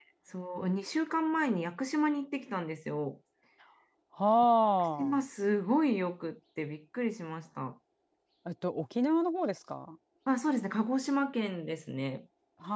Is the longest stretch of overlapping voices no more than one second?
Yes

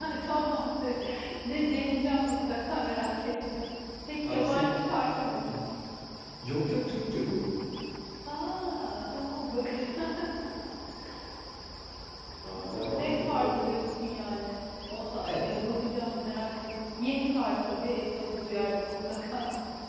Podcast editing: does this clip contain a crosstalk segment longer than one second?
Yes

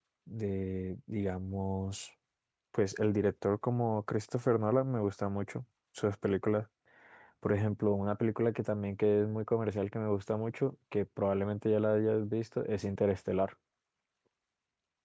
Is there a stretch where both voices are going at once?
No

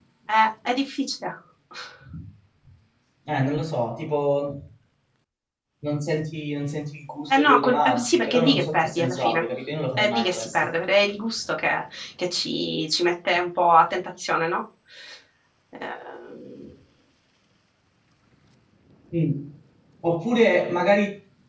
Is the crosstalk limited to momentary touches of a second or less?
No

